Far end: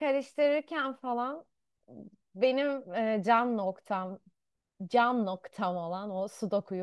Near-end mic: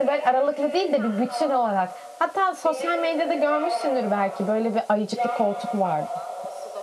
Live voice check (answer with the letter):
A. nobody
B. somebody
B